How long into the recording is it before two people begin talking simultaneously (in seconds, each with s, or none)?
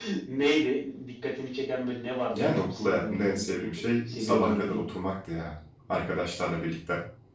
2.3 s